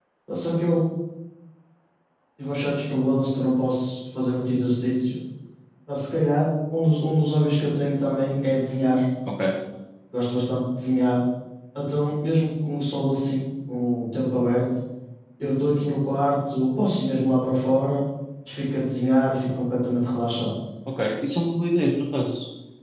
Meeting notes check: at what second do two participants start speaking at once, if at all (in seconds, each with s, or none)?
none